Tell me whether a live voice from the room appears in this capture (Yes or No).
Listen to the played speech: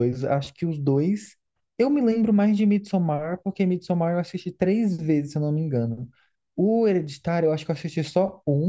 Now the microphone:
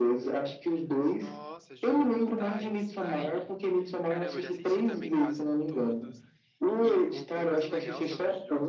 Yes